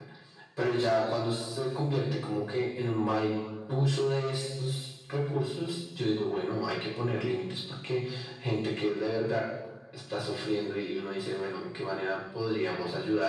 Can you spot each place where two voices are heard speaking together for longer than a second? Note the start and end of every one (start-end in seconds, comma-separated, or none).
none